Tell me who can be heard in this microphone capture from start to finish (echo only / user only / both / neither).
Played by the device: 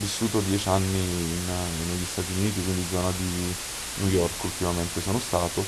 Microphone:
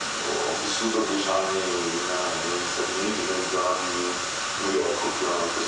echo only